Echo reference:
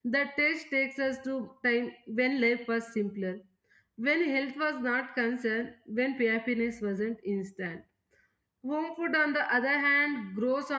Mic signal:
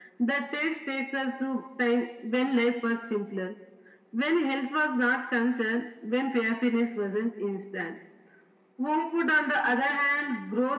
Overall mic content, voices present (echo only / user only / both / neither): echo only